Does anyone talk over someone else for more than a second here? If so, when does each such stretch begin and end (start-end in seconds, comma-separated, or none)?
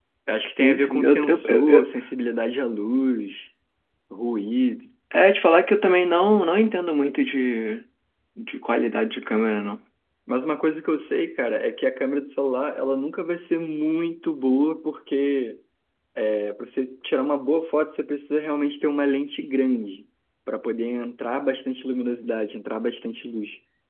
0.6-1.9